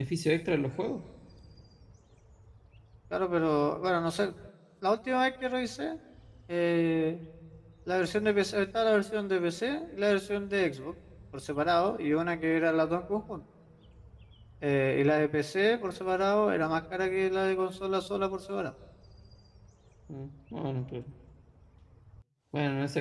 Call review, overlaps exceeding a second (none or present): none